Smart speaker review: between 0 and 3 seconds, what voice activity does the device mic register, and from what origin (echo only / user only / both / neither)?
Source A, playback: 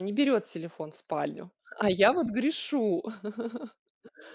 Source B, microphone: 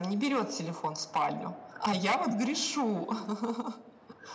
echo only